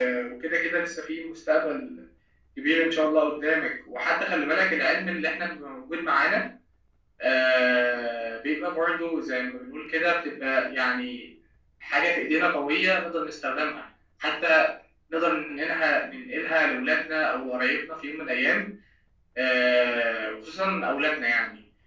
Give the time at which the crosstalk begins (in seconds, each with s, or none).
none